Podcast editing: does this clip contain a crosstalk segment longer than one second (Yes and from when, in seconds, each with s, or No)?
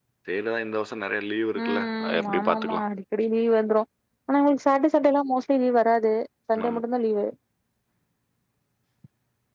Yes, from 1.6 s